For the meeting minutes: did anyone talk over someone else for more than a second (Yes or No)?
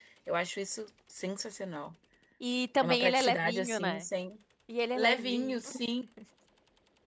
Yes